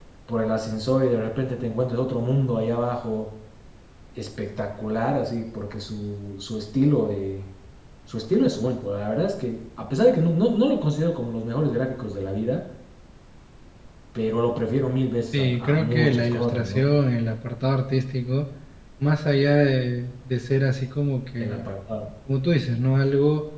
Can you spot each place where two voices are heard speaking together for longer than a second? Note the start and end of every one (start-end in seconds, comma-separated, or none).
15.3-16.8